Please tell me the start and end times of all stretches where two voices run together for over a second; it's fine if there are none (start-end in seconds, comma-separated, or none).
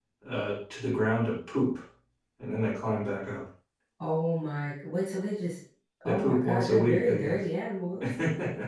6.0-7.4